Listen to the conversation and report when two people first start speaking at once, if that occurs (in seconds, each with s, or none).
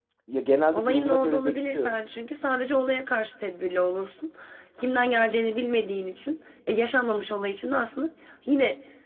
0.7 s